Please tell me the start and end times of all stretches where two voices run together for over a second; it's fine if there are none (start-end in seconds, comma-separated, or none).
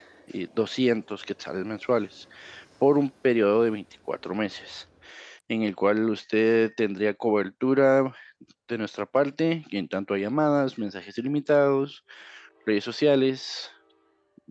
none